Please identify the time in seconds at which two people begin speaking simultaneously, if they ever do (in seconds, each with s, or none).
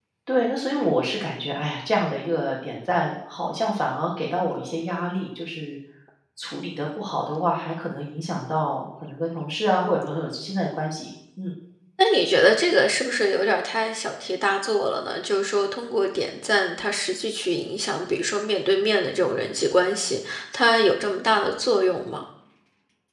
none